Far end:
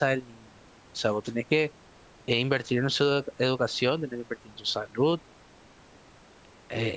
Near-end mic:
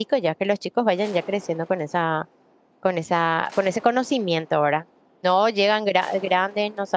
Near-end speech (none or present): present